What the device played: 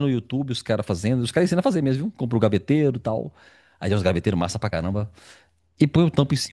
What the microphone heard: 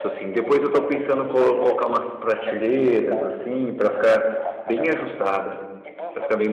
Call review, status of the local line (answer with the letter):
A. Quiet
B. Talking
B